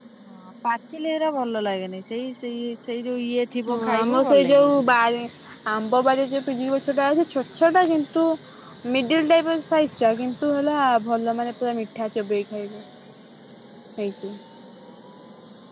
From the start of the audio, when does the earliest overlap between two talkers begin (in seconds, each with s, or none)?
3.7 s